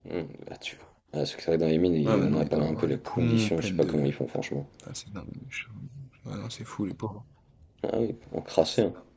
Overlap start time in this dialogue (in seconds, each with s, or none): 2.0 s